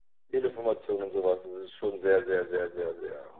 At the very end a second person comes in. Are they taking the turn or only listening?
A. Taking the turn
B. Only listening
A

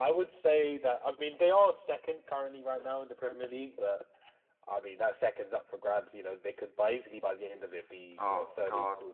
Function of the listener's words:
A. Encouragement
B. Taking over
B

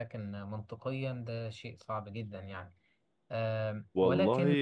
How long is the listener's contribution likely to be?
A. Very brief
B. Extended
B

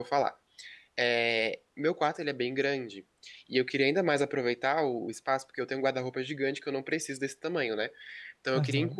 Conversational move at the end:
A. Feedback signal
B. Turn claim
A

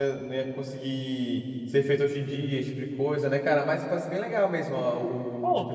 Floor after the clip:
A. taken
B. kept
A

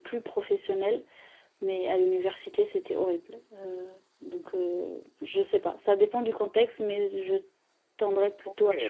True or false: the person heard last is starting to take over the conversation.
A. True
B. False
A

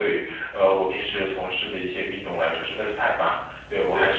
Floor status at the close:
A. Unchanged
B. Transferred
A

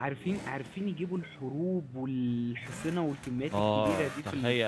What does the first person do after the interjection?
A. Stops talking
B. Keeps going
A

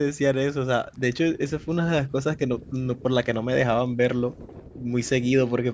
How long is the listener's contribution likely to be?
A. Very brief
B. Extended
A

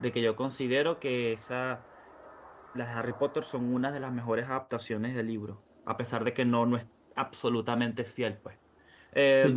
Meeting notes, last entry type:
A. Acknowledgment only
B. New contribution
B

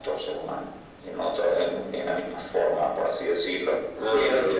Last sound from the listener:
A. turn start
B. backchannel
A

